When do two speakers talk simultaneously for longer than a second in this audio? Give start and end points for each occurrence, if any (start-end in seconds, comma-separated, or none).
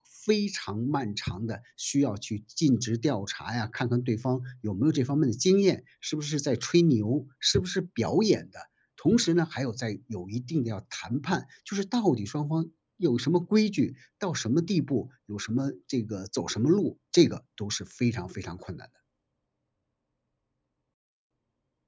none